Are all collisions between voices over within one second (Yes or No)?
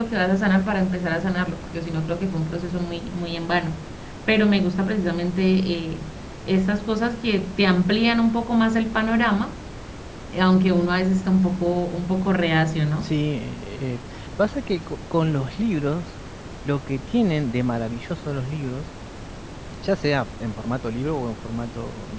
Yes